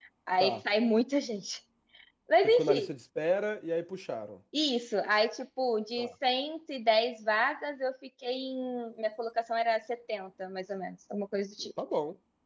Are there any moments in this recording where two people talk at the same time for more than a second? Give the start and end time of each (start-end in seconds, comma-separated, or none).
none